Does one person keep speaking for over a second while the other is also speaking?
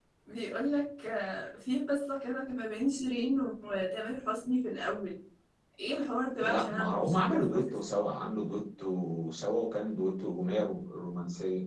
Yes, from 6.4 s

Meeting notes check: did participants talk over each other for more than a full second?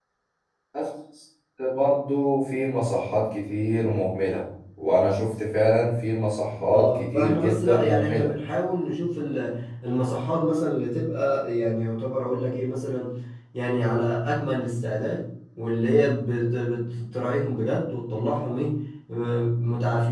Yes, from 6.7 s

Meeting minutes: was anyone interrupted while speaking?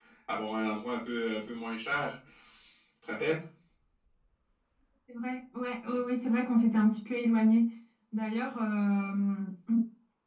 No

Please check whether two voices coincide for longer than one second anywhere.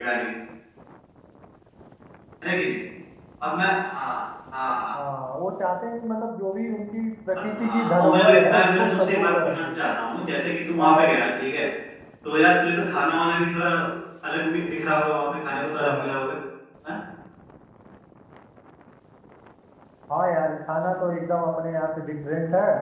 Yes, from 7.4 s

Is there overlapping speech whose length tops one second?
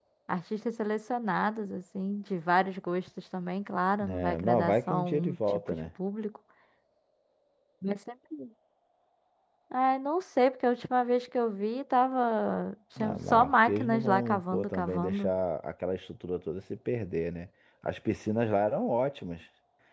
Yes, from 4.0 s

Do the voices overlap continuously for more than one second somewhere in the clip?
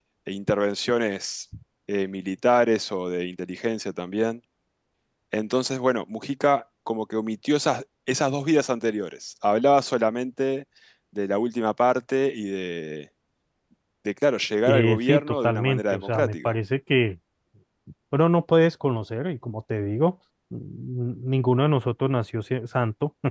Yes, from 14.7 s

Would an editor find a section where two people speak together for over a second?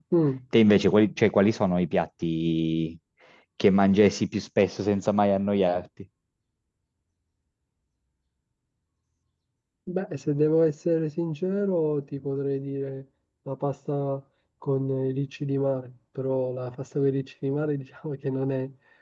No

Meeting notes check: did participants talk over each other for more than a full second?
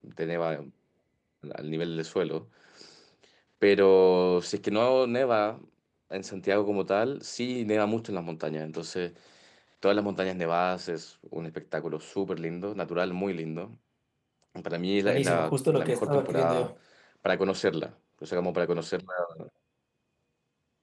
Yes, from 15.0 s

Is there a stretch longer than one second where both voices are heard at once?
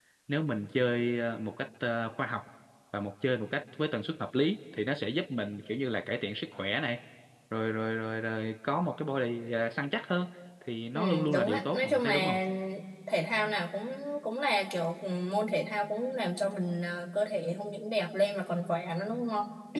Yes, from 10.9 s

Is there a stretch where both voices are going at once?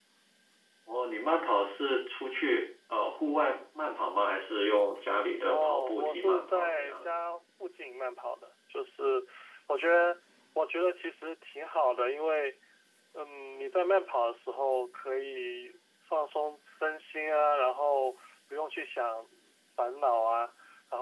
Yes, from 5.5 s

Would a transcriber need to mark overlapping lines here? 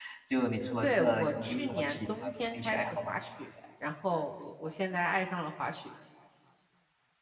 Yes, from 0.8 s

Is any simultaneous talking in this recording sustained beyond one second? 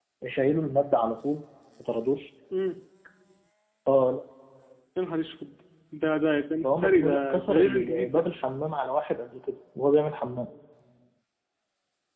Yes, from 6.6 s

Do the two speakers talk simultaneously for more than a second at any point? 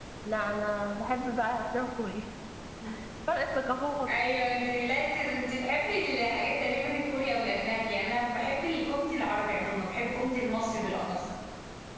No

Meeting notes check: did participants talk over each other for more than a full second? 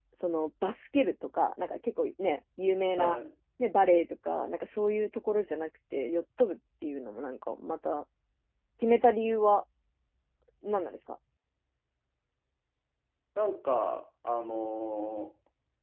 No

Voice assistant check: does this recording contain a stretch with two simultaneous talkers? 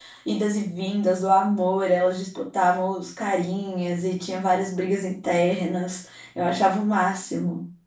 No

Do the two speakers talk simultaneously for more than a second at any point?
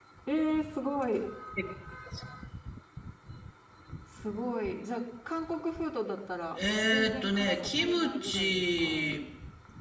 Yes, from 6.8 s

